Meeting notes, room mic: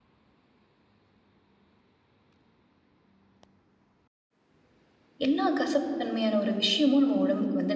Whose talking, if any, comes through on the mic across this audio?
user only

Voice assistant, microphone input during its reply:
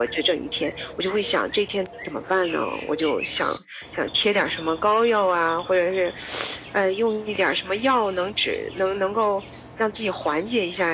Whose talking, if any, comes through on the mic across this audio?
echo only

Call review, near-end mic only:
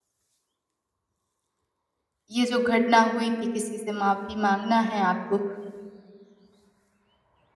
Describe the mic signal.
user only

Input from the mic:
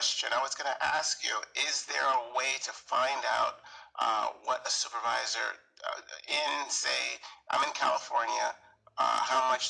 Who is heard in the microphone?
echo only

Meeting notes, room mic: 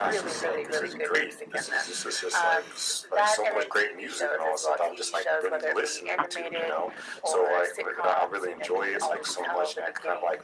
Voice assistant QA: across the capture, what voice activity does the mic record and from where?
echo only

